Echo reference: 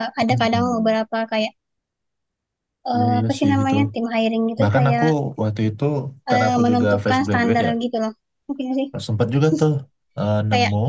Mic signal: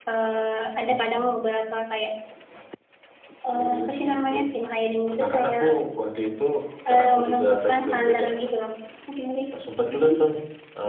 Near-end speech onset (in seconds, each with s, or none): none